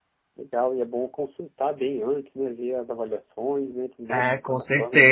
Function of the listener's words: taking over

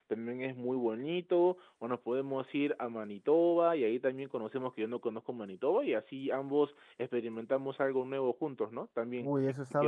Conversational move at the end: taking over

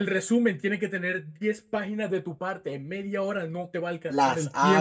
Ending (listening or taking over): taking over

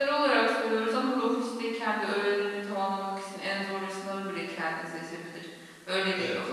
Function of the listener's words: taking over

